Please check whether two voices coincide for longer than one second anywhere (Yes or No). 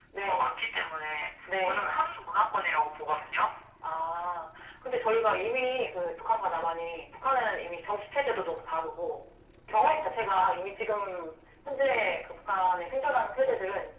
No